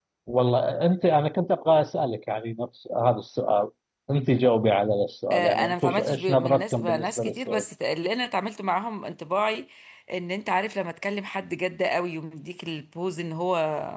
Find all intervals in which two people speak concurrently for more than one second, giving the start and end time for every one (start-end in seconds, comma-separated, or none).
5.3-7.6